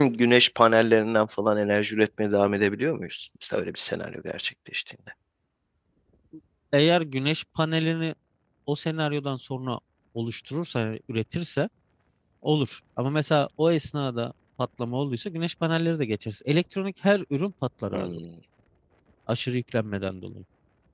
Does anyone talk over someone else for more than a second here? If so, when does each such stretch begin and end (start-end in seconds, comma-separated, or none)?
none